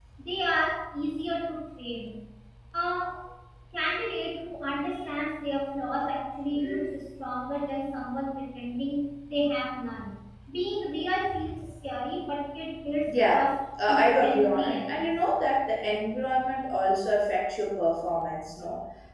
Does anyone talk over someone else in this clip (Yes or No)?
Yes